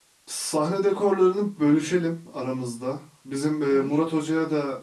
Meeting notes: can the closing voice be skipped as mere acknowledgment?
Yes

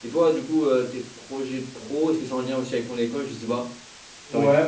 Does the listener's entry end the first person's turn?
Yes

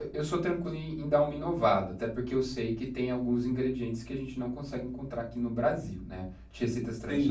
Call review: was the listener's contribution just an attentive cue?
No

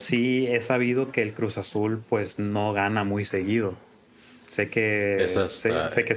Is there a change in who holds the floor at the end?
No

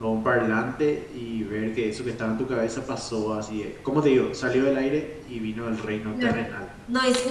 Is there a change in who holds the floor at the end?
Yes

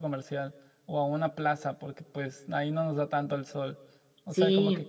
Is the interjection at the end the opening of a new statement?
No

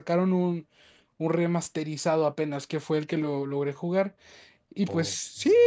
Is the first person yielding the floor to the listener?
No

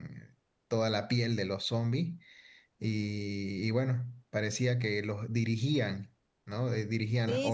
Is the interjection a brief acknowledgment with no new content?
No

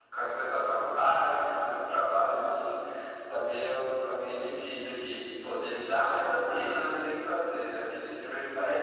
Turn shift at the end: Yes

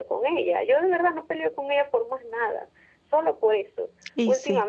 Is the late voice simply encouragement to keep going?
Yes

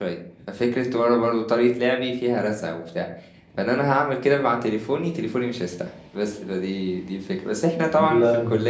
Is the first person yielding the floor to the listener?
No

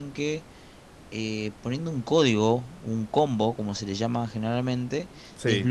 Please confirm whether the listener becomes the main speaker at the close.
No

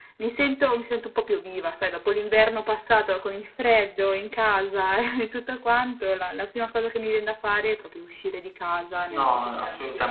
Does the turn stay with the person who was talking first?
No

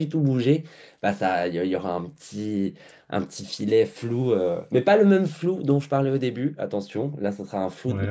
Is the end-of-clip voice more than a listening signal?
No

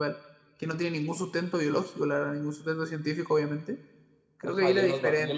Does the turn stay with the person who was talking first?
No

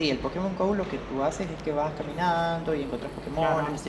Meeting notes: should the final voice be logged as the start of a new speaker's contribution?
No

